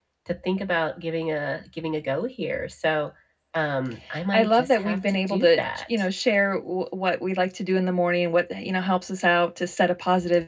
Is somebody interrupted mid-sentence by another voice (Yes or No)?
Yes